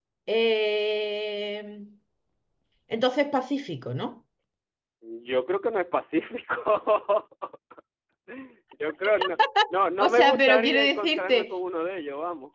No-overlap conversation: No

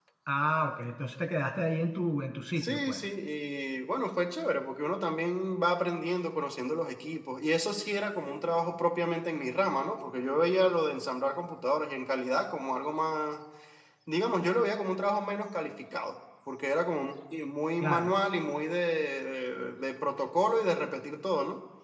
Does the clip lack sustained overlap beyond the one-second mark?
Yes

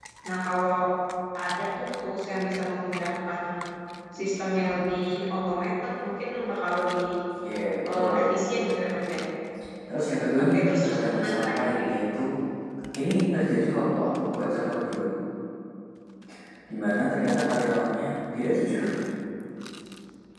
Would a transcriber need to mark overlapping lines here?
Yes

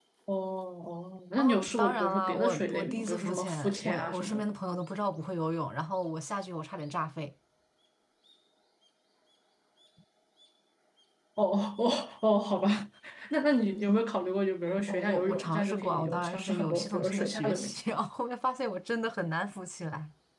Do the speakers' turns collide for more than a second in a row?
Yes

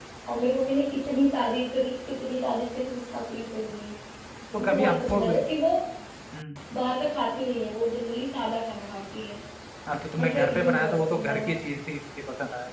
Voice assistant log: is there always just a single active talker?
No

